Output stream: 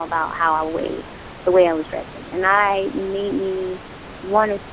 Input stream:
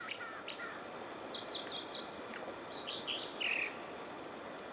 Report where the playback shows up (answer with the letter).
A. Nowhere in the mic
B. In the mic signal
A